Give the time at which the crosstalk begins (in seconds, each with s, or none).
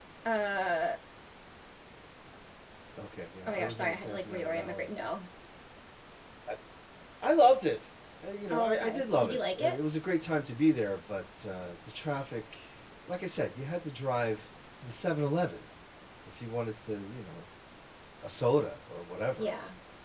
3.5 s